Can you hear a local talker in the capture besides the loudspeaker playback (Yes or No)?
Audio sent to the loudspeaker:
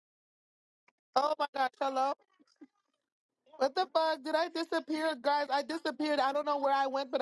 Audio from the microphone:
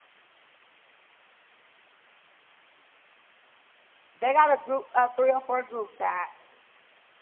Yes